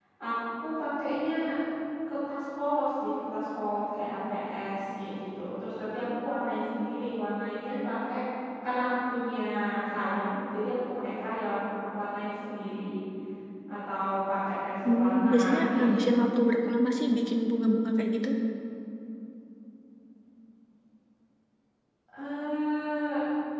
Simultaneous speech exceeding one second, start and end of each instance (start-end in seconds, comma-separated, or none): 14.8-16.1